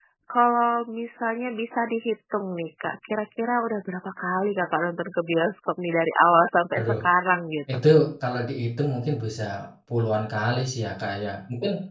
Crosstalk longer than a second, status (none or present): none